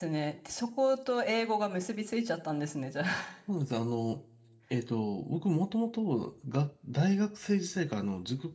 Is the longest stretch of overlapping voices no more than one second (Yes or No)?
Yes